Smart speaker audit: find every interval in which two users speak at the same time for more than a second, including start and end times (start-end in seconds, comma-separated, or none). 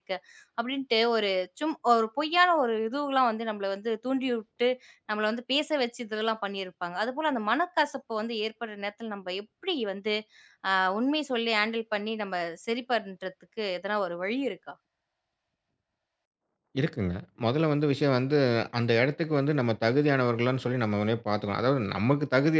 none